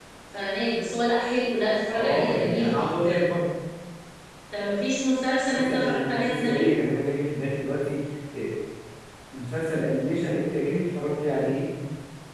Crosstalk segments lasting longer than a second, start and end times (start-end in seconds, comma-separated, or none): 1.9-3.4, 5.5-6.8